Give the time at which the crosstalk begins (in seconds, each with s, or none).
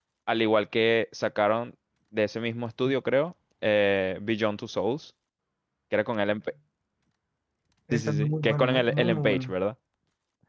7.9 s